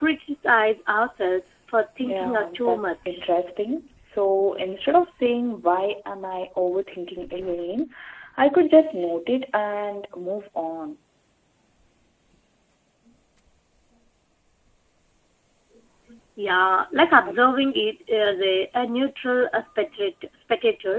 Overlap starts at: 2.0 s

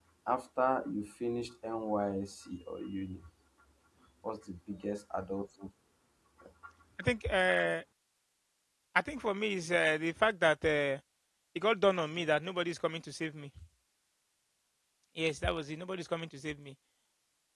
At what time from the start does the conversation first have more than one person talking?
none

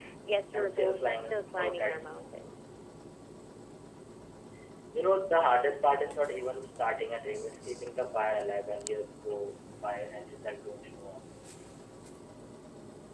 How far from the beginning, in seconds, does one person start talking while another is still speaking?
0.5 s

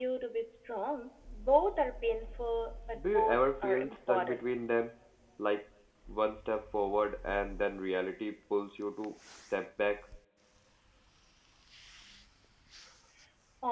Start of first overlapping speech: 2.9 s

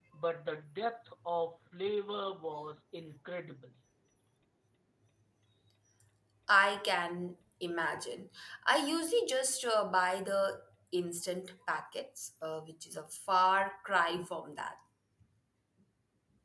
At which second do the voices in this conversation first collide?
none

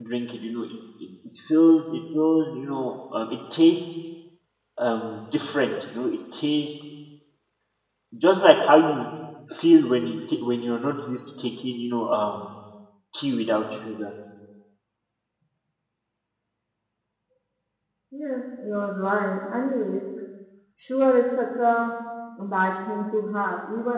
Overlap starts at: none

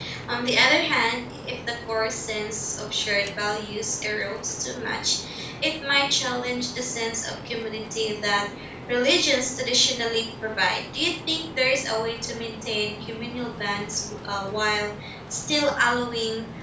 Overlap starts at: none

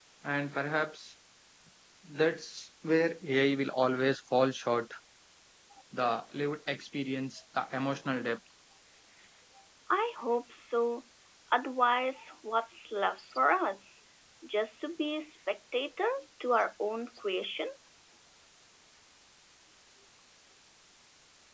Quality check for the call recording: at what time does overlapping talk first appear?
none

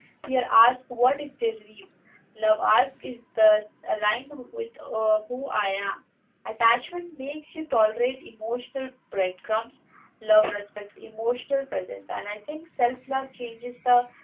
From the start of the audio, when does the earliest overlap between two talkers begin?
none

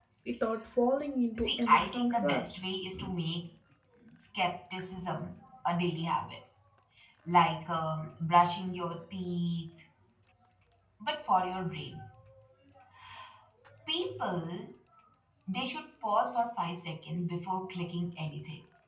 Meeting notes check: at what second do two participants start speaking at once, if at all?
1.4 s

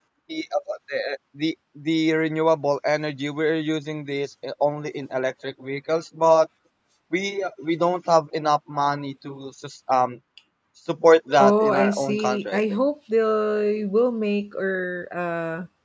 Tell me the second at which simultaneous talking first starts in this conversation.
11.4 s

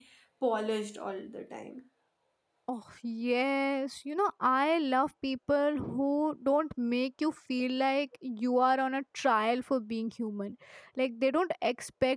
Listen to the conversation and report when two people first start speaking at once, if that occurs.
none

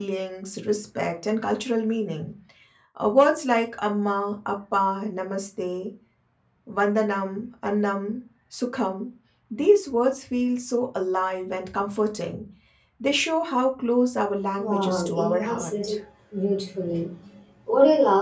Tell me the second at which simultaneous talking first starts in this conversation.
14.6 s

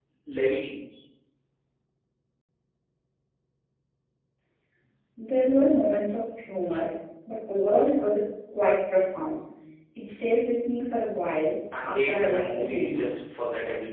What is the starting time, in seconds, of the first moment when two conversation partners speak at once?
11.7 s

